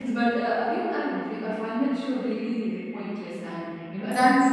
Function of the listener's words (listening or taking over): taking over